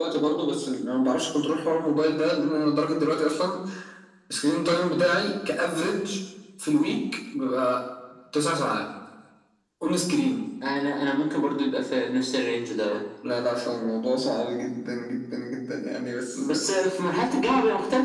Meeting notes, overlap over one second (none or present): none